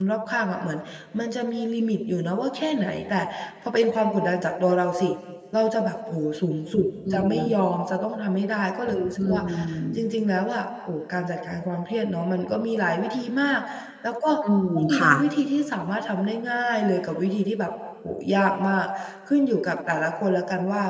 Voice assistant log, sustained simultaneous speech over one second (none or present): none